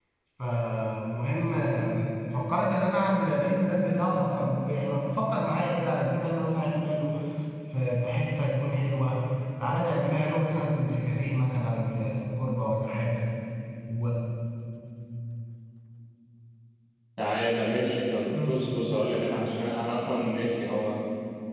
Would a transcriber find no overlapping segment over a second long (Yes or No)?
Yes